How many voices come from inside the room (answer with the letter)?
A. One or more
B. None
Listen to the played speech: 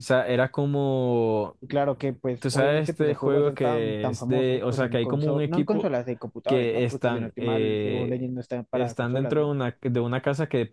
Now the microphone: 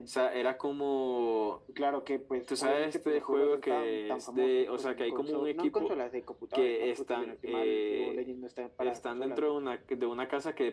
B